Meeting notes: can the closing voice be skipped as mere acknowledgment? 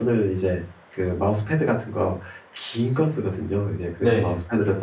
Yes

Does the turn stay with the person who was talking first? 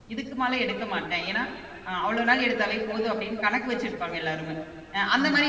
Yes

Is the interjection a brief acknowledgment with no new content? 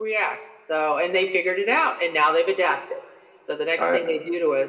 Yes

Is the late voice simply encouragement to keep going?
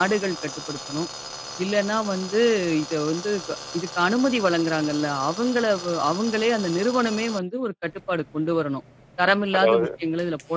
Yes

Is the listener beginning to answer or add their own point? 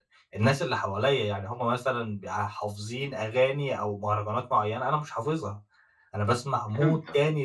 No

